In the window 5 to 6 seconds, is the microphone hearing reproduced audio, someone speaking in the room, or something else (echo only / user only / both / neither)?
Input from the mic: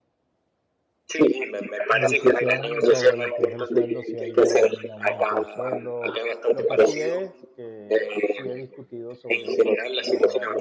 both